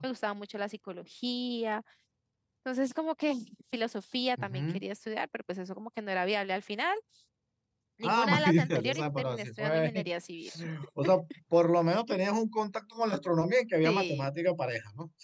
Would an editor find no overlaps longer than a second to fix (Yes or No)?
No